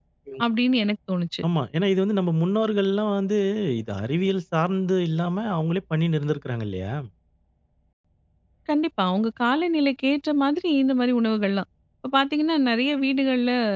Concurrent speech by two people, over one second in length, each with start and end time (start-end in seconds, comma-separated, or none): none